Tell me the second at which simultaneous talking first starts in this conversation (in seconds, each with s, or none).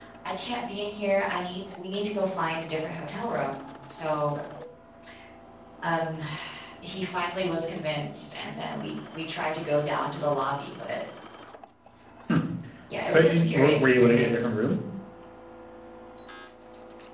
13.1 s